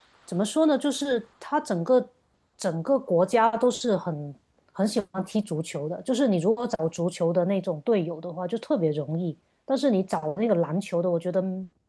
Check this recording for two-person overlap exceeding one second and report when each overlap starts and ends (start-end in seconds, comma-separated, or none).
none